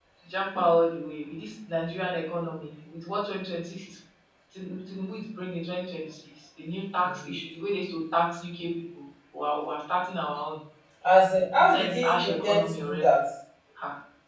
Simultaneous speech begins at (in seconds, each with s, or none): 11.6 s